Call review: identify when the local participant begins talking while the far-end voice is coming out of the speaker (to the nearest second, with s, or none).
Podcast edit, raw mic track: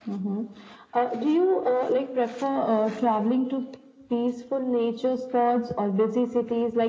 none